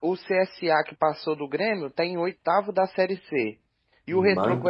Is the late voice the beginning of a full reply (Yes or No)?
No